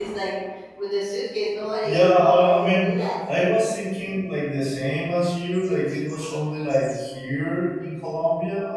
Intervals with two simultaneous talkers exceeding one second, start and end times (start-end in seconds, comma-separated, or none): 1.8-3.1